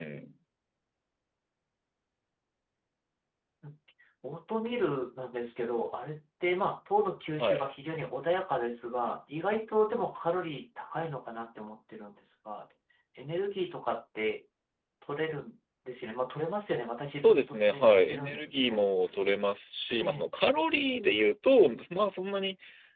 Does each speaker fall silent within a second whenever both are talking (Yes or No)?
No